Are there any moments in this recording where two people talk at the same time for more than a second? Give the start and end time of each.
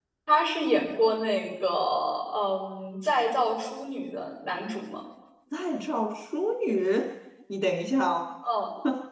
none

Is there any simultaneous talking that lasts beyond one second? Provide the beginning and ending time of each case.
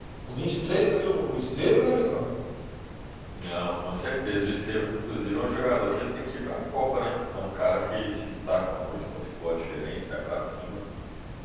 none

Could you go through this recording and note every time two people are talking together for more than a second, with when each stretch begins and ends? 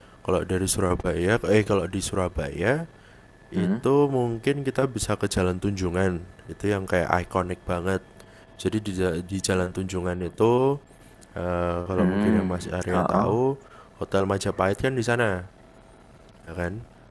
12.0-13.3

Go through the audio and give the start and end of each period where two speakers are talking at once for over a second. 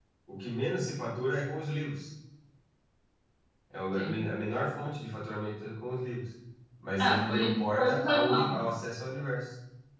7.0-8.4

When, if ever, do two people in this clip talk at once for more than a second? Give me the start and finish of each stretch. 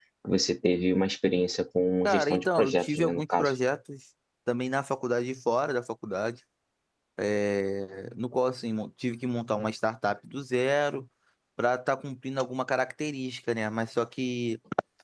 2.0-3.5

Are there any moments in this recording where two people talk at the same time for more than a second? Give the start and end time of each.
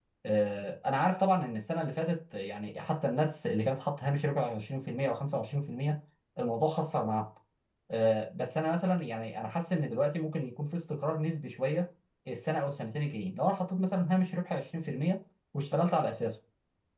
none

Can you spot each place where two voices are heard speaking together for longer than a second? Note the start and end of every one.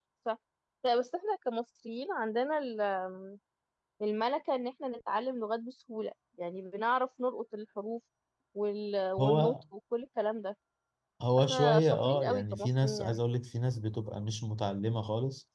11.4-13.2

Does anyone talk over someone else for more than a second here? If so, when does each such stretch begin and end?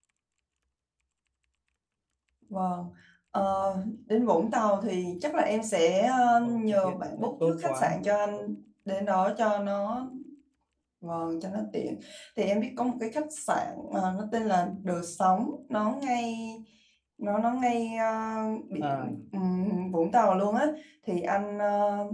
6.4-7.9

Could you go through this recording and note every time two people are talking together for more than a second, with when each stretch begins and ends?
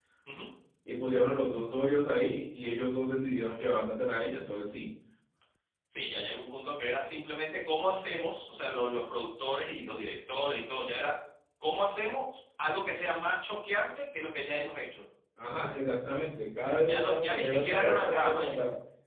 16.9-18.5

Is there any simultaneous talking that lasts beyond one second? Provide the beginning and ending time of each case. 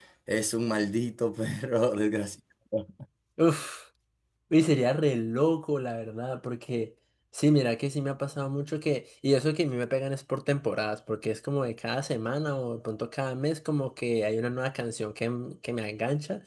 none

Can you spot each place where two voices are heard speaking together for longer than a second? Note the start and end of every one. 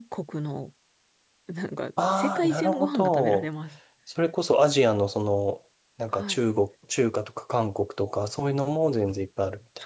2.1-3.5

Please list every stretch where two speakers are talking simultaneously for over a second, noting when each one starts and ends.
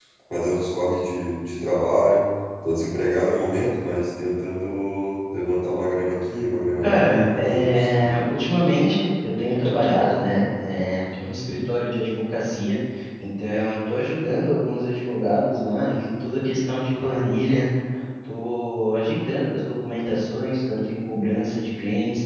6.8-8.2

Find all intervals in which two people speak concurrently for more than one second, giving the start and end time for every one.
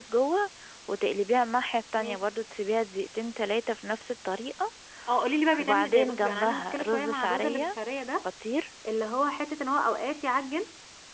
5.6-7.8

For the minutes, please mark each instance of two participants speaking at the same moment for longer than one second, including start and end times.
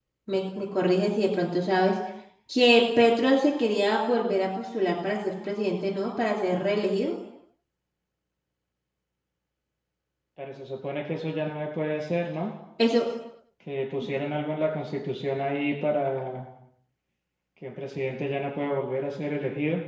none

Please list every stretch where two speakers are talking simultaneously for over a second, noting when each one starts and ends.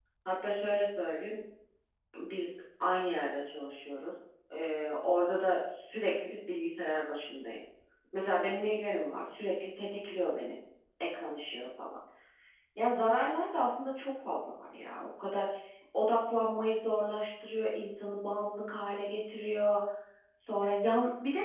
none

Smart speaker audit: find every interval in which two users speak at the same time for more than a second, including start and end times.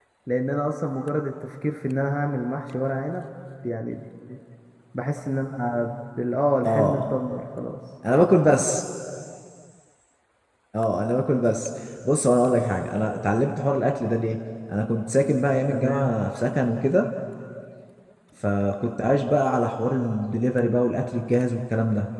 none

